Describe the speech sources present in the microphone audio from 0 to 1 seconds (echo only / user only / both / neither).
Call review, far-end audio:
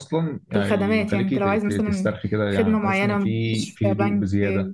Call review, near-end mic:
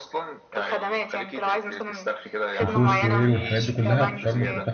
echo only